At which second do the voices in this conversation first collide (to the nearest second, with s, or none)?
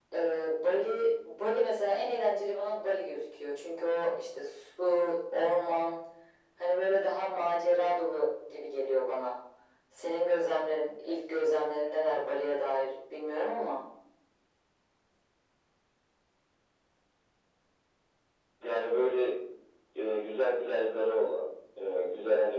none